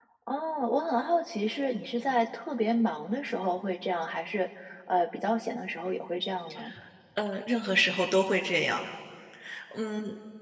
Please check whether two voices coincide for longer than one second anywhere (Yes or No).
No